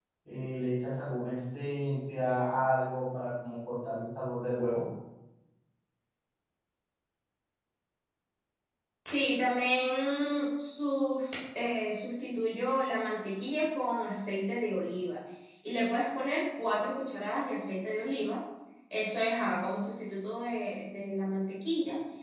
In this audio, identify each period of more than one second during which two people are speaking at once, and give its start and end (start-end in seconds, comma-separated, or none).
none